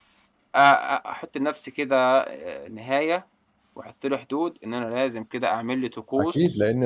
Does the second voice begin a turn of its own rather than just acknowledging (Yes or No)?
Yes